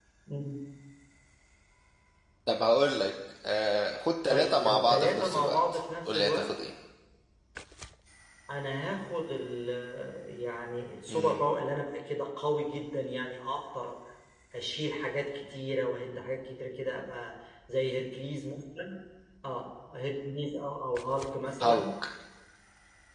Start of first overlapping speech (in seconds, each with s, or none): 4.3 s